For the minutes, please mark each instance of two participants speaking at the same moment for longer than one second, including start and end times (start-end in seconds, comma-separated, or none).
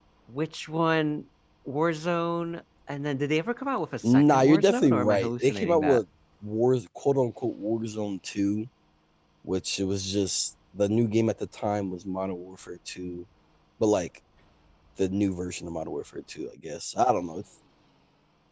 4.0-6.0